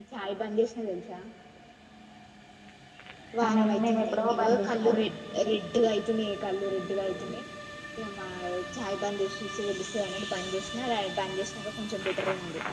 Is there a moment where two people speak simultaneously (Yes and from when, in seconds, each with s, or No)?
Yes, from 3.4 s